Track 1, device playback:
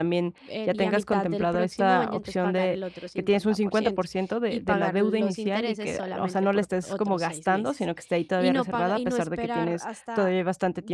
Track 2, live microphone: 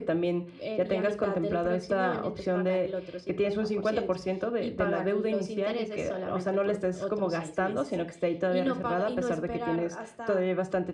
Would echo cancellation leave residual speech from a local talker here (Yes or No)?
No